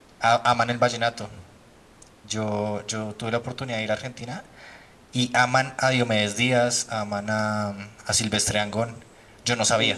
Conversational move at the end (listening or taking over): taking over